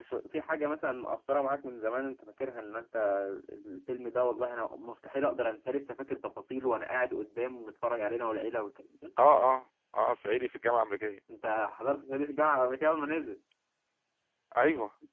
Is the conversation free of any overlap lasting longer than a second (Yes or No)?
Yes